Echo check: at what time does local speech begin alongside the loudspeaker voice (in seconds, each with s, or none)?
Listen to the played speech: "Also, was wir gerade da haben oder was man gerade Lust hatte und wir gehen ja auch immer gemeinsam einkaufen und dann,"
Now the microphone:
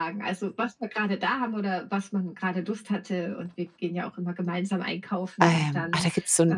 5.4 s